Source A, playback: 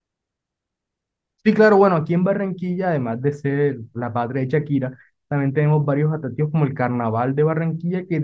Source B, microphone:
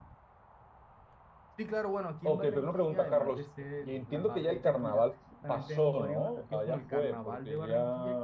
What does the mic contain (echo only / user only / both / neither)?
both